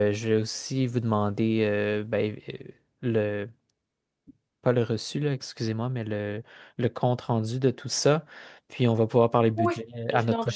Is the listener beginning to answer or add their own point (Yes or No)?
Yes